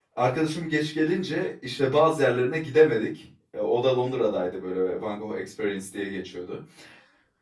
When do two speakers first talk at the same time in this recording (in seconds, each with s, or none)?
none